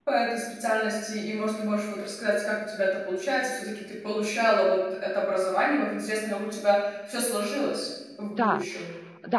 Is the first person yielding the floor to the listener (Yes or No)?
Yes